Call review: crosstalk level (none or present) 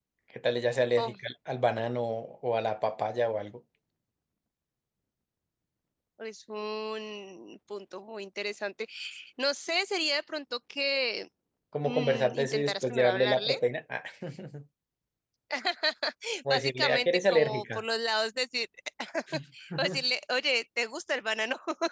present